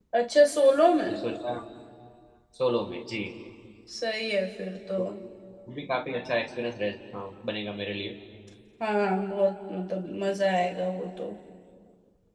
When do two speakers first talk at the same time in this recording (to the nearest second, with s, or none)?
none